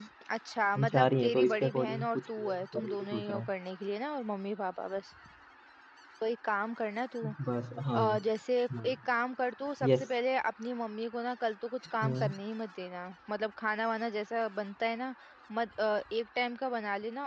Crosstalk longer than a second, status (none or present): present